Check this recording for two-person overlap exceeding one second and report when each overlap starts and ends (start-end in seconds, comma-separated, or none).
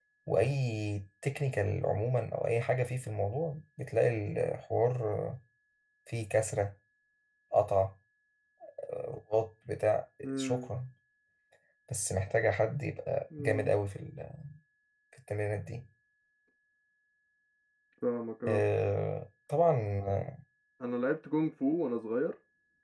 none